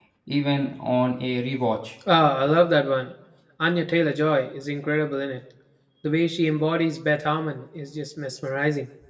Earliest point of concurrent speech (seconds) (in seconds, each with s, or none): none